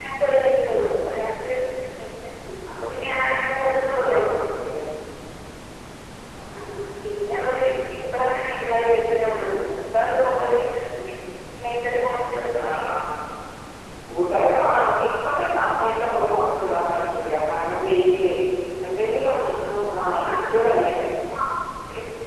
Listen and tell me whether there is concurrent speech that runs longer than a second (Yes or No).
No